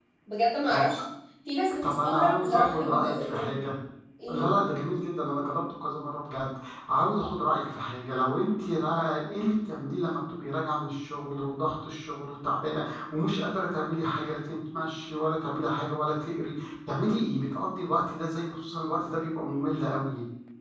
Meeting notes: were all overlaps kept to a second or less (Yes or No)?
No